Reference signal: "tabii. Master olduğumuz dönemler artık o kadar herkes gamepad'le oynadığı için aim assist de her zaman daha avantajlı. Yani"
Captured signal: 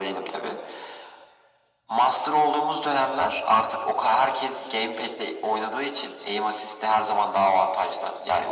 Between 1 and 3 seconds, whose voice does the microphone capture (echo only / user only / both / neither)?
echo only